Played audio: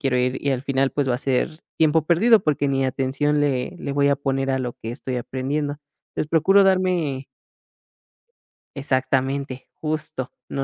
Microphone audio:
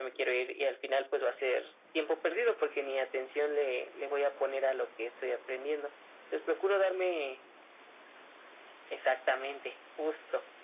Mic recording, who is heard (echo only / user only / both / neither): echo only